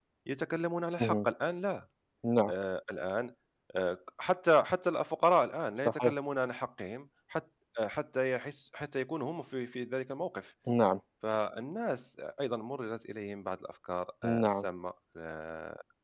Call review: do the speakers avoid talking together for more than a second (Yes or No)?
Yes